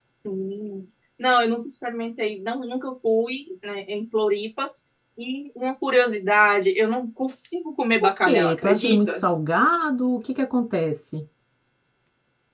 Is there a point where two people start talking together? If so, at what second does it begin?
8 s

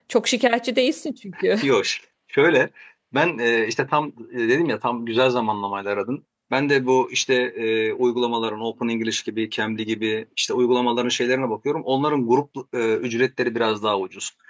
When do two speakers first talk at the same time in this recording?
none

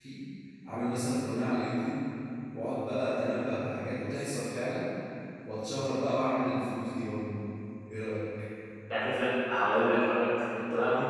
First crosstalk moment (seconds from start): none

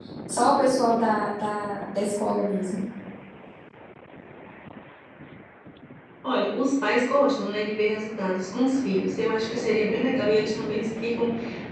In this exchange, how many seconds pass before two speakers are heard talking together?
none

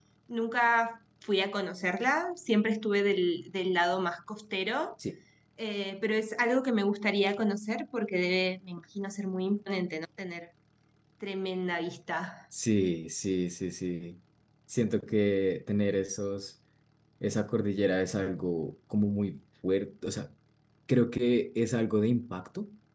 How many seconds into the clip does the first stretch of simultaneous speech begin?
none

